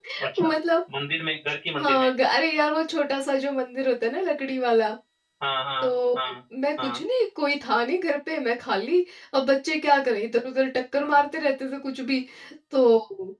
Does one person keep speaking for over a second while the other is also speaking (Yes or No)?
No